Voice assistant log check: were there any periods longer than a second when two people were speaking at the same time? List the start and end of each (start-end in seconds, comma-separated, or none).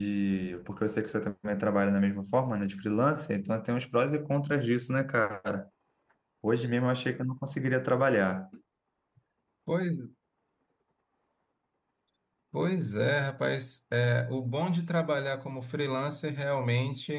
none